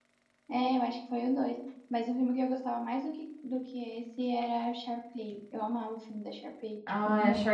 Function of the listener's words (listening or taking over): taking over